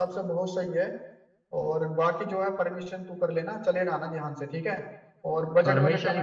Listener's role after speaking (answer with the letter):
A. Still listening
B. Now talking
B